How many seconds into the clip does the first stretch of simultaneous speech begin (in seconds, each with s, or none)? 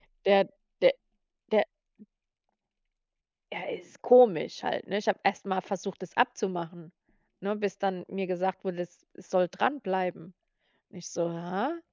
none